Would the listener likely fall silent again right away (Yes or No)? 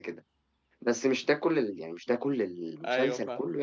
Yes